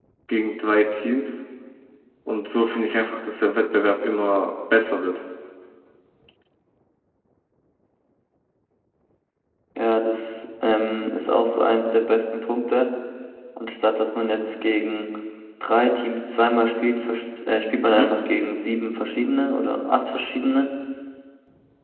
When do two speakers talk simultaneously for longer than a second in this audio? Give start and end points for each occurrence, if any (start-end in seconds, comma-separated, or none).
none